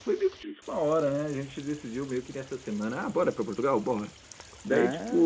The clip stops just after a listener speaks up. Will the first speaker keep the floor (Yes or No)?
Yes